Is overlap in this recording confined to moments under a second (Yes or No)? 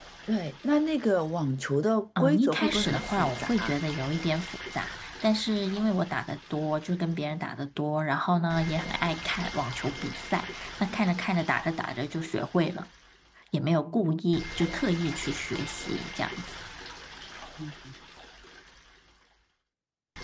No